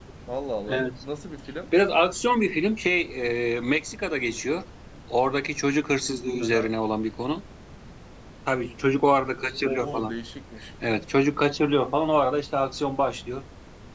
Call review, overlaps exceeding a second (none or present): none